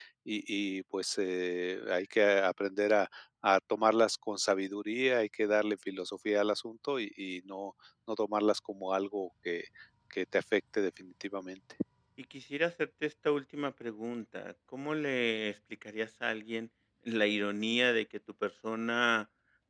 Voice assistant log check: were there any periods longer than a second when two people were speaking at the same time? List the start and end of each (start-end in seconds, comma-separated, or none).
none